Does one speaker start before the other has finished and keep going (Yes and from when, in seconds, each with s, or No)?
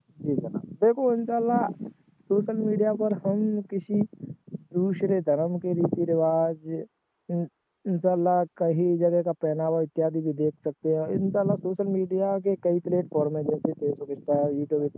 No